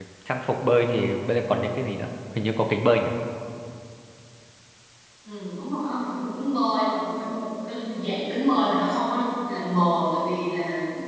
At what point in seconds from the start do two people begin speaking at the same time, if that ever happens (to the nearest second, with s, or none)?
none